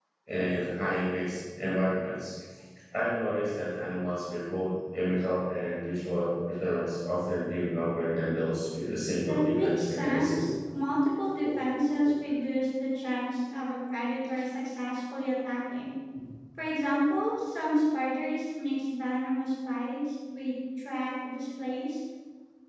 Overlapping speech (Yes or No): Yes